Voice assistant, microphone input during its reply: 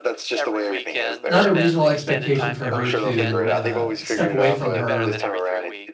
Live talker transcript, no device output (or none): not a reasonable expectation for her to, uh, step away from her